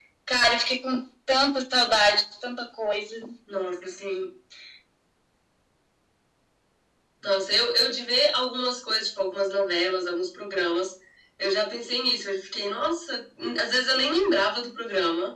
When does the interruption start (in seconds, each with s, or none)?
none